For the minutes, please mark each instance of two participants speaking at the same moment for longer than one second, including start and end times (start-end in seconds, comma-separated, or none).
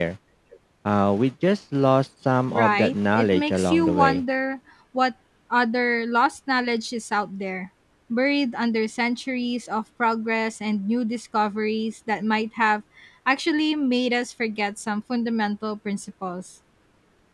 2.5-4.2